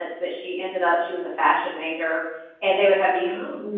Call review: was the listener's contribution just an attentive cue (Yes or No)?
Yes